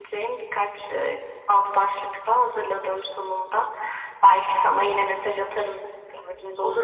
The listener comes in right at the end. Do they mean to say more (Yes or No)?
Yes